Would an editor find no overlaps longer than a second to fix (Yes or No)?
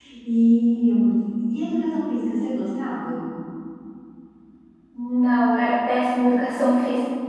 Yes